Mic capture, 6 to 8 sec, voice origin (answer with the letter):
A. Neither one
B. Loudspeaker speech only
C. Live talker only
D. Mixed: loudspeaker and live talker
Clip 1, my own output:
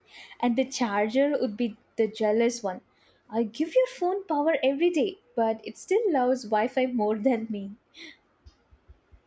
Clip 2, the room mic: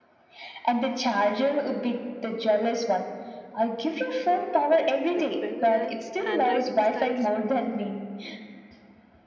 D